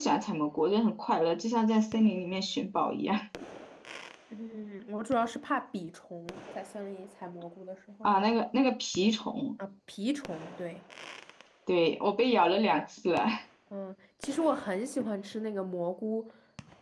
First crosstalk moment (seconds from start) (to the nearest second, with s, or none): none